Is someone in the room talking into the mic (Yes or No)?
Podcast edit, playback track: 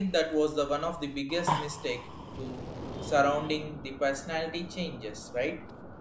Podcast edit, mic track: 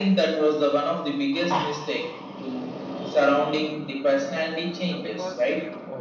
Yes